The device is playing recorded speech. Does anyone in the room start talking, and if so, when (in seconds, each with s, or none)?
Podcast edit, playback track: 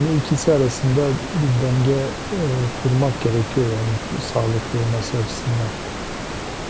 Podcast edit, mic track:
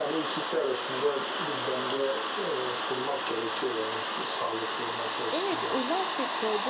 5.3 s